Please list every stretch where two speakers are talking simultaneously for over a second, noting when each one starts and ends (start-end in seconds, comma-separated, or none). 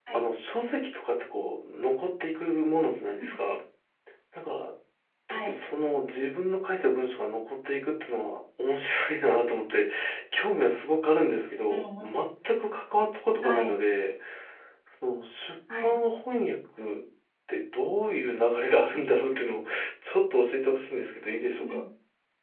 none